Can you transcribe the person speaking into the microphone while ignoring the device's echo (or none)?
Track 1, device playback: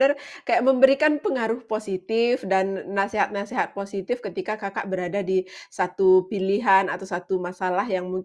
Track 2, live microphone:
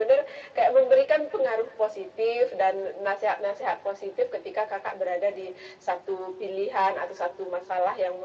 none